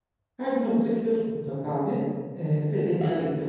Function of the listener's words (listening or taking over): listening